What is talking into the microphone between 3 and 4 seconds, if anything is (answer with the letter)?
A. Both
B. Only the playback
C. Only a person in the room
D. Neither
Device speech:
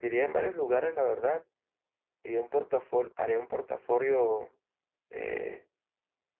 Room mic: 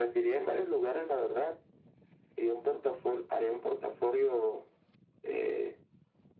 B